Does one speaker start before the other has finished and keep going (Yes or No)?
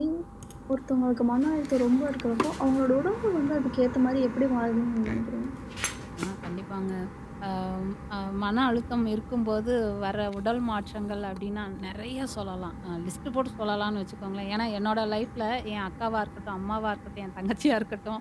No